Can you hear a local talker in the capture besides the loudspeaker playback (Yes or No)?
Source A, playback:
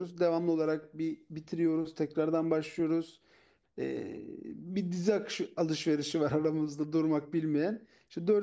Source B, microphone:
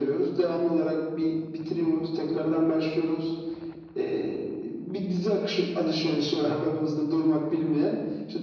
Yes